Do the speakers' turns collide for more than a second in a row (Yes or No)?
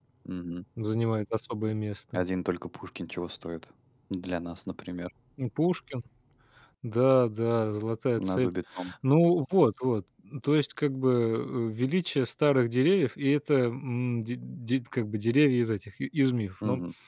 No